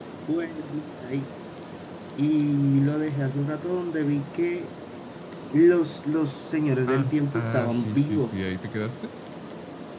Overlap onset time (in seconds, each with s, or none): 6.9 s